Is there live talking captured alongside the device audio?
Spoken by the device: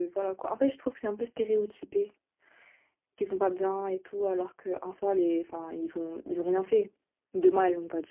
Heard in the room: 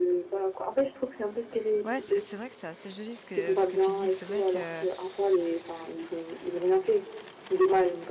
Yes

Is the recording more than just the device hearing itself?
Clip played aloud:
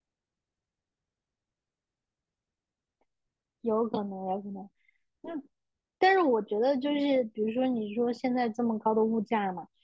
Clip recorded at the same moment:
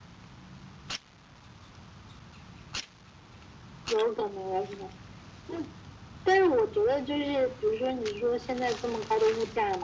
No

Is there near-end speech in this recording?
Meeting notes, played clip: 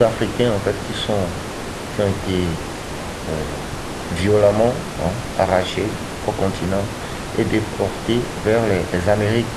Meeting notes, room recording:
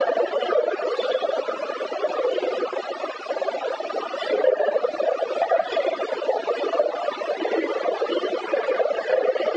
No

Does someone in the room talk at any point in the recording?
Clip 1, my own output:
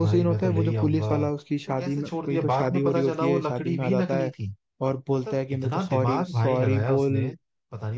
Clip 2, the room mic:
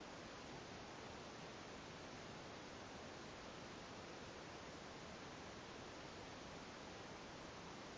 No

